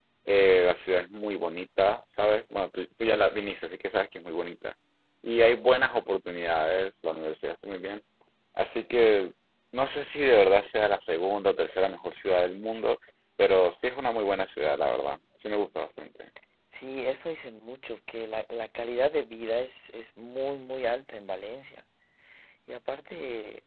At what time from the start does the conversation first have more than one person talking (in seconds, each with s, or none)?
none